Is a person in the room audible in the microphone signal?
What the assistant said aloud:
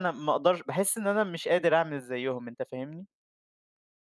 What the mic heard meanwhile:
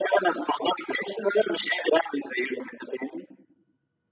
No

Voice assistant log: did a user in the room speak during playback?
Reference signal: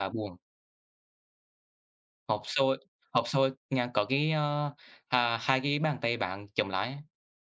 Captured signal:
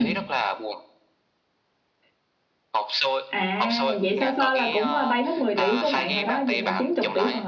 Yes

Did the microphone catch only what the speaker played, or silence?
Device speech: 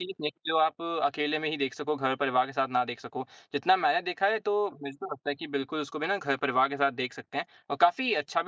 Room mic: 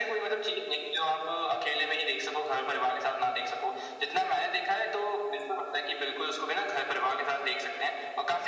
Yes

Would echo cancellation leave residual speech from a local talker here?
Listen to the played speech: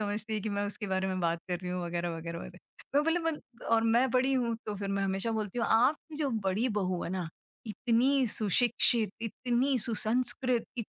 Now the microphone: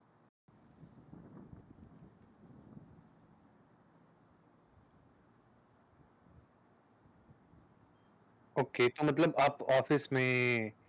Yes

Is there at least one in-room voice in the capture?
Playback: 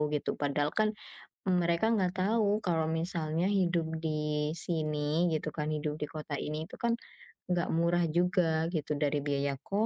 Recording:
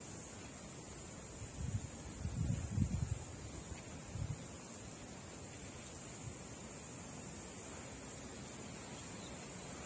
No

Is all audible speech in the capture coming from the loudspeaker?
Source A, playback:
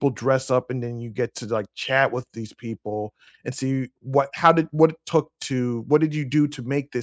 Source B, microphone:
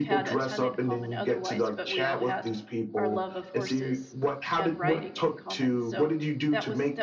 No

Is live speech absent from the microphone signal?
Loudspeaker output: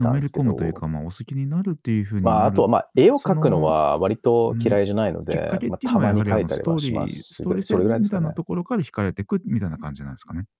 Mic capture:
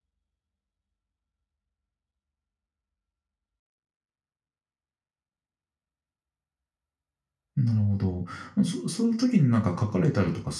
No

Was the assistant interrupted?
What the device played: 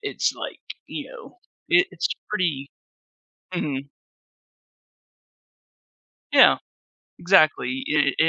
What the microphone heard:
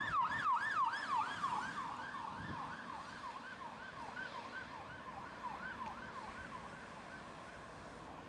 No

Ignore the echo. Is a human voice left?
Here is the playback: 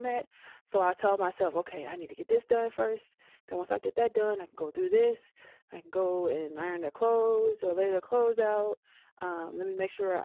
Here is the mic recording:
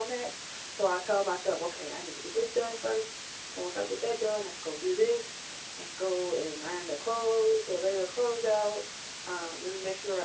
No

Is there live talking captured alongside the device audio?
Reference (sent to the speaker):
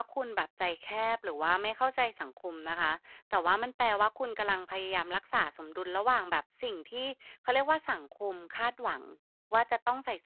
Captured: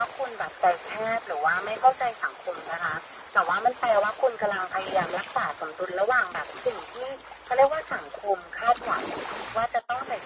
No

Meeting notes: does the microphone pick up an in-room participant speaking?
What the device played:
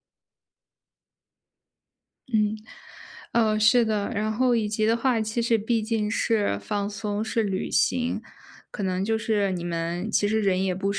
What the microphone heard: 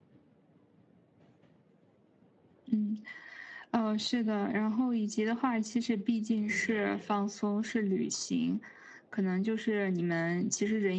Yes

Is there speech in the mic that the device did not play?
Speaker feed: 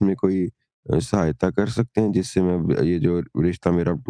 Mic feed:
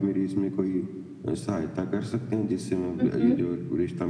Yes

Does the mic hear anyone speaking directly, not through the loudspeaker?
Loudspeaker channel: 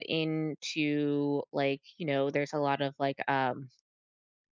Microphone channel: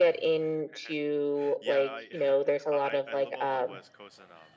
Yes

